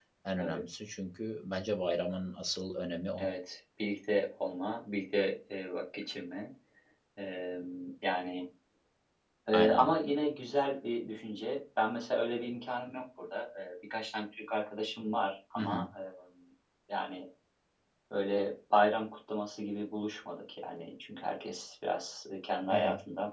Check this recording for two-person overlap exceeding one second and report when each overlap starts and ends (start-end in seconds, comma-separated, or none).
none